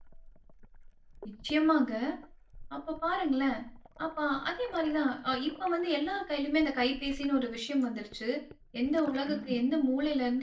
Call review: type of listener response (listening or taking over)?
listening